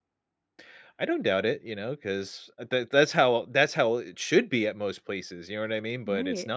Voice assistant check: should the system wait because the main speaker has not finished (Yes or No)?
No